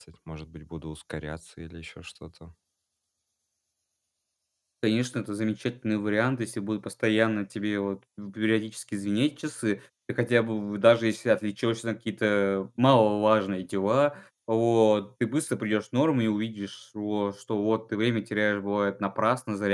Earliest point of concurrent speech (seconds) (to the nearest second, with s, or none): none